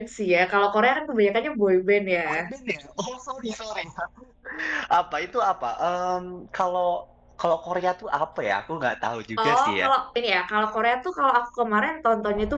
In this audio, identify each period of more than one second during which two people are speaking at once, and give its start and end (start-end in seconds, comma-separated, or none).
none